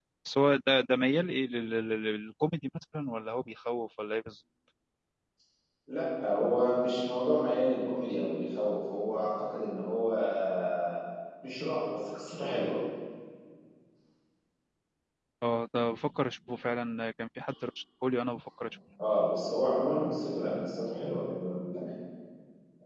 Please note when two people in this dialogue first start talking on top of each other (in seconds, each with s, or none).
none